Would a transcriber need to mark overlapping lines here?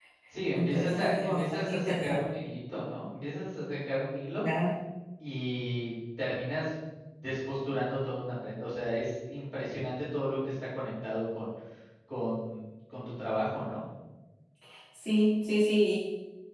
Yes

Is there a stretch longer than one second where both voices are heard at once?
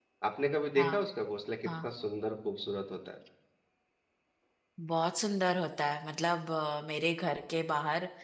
No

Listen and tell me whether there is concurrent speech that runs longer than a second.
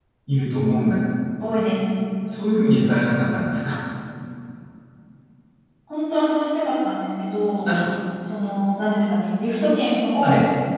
No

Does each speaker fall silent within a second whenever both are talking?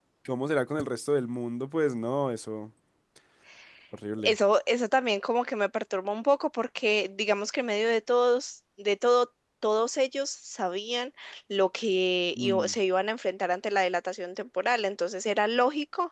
Yes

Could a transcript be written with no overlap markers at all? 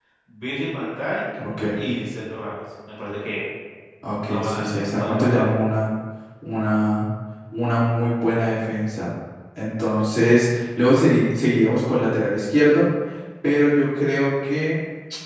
No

